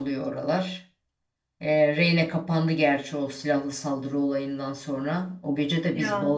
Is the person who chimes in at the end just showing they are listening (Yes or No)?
Yes